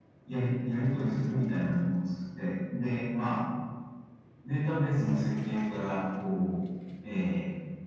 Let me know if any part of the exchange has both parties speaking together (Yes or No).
No